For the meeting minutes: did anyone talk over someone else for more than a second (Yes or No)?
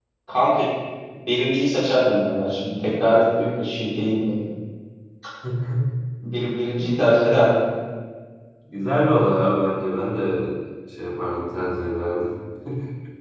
No